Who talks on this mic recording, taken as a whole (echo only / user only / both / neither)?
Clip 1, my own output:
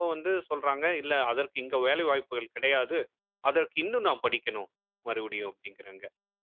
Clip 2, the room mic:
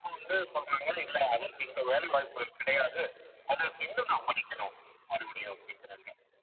echo only